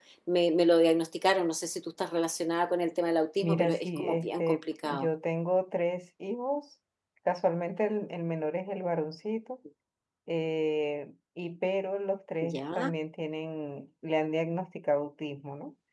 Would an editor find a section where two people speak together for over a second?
Yes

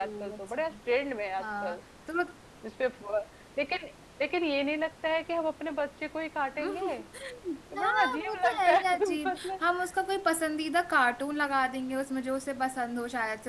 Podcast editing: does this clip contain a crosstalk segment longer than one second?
Yes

